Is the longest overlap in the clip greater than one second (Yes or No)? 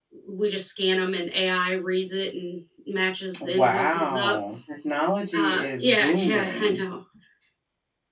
Yes